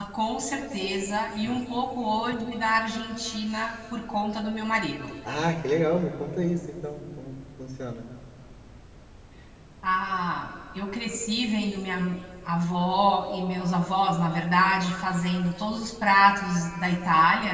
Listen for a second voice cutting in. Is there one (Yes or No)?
No